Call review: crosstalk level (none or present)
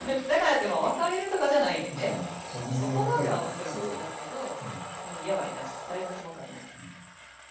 present